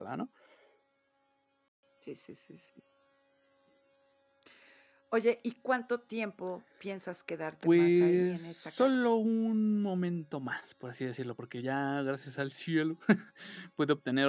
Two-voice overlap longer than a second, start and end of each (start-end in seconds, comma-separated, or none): 7.6-9.0